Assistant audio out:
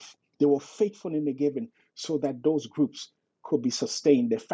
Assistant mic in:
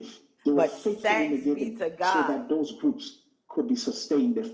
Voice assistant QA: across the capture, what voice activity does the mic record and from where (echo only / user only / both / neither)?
both